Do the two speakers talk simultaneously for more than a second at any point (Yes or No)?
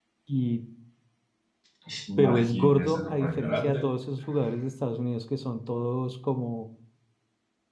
Yes